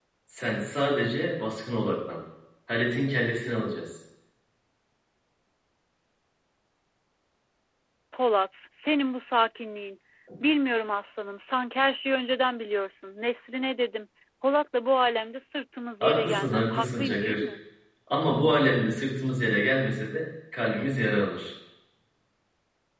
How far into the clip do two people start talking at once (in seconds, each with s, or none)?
16.0 s